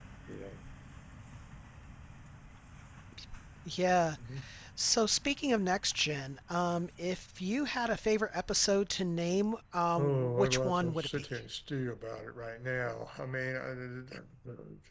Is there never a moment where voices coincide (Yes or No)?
No